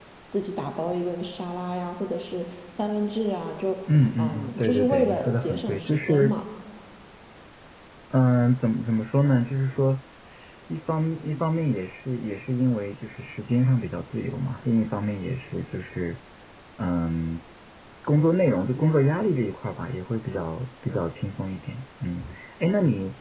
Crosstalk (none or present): present